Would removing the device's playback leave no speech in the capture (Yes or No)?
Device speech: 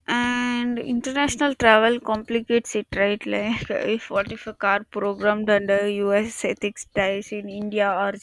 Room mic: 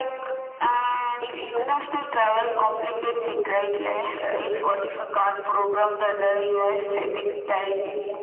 No